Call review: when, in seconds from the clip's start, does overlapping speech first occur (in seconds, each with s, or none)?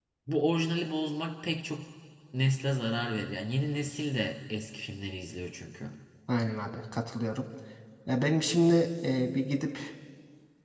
none